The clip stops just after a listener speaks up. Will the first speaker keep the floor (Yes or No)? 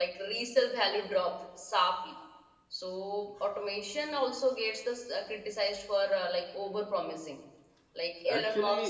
No